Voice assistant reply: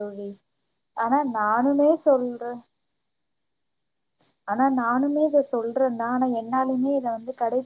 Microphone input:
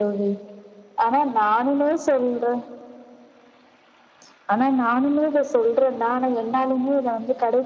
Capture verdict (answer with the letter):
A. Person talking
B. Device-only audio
B